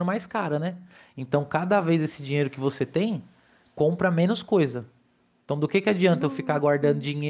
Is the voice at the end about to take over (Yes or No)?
No